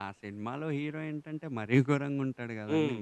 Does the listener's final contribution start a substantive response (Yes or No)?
Yes